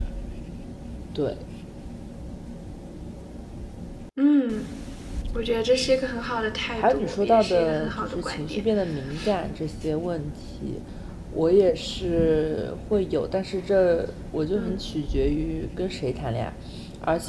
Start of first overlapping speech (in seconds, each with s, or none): 6.7 s